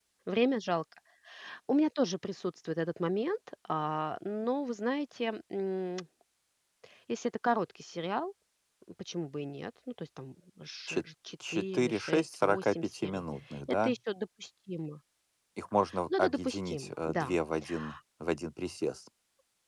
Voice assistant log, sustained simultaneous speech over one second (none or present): present